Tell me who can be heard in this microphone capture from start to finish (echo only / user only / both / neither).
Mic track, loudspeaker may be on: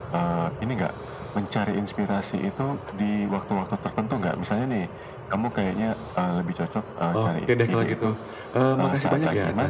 both